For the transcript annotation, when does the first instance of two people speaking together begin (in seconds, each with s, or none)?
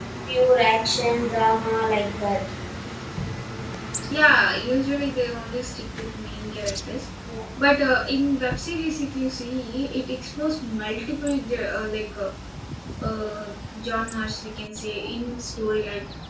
none